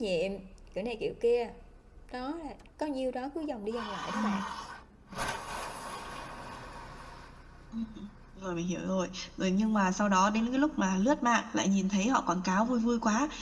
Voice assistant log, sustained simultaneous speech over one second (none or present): none